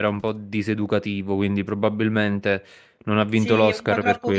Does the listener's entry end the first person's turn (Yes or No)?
Yes